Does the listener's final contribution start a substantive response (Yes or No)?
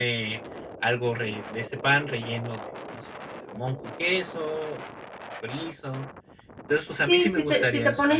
Yes